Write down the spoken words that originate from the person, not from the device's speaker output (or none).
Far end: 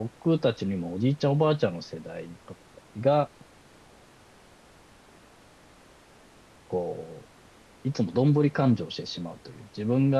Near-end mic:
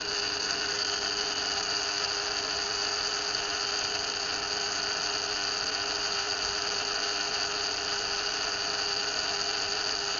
none